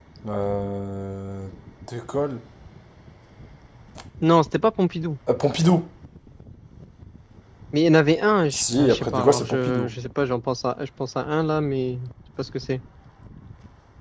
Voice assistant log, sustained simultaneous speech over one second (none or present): present